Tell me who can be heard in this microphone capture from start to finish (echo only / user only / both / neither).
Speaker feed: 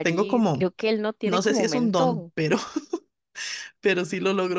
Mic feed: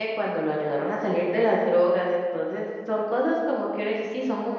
user only